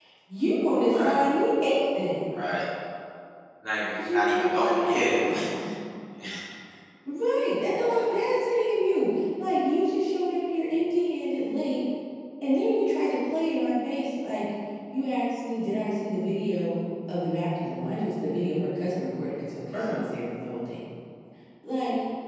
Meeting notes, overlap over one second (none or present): present